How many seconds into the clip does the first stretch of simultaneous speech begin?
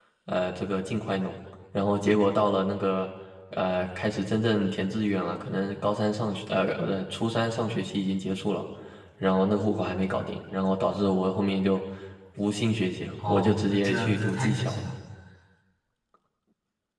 13.2 s

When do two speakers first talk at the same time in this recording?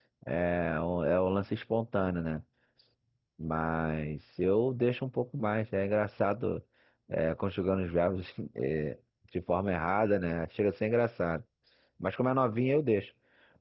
none

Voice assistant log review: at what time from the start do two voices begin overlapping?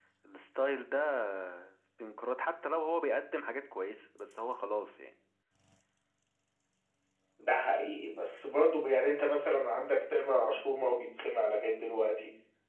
none

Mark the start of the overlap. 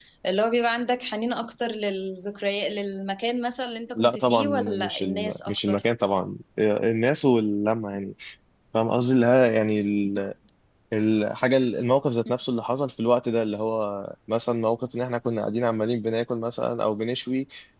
4.0 s

